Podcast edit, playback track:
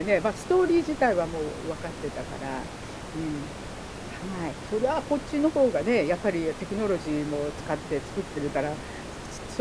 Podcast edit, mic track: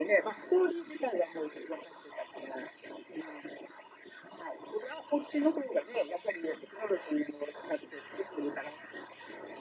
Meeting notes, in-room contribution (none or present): none